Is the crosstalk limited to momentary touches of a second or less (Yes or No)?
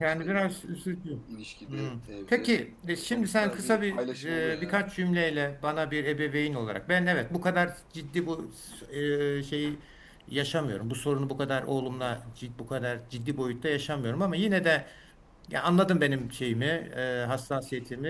No